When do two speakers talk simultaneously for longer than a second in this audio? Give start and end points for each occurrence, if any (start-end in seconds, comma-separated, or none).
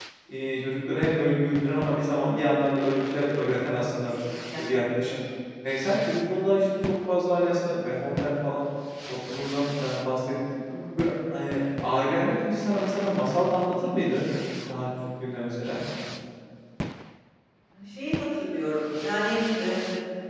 none